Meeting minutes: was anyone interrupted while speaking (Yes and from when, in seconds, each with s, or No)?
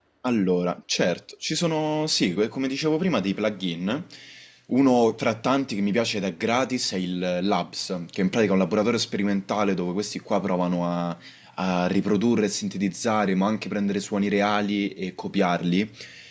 No